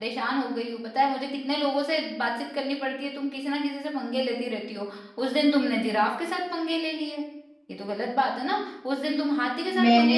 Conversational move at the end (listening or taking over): listening